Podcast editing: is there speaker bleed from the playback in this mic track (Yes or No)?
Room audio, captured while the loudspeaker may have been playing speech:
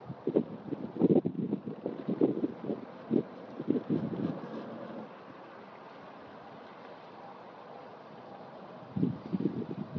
No